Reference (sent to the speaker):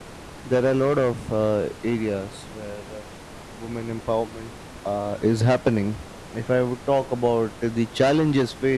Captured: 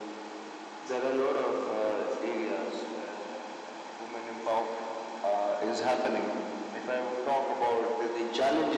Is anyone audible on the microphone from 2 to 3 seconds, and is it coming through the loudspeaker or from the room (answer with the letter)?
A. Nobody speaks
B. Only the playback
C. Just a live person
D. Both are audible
B